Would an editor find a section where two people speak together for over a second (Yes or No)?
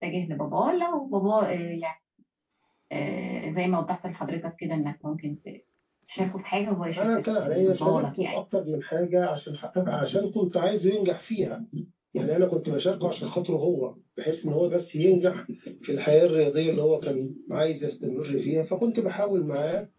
Yes